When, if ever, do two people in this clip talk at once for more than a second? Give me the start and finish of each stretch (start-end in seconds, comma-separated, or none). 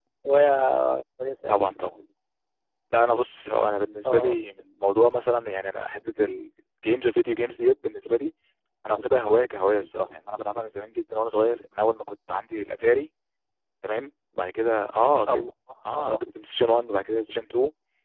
none